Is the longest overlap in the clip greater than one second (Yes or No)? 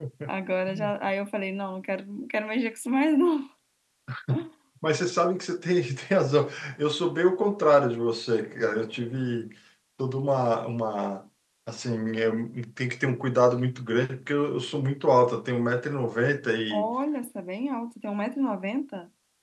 No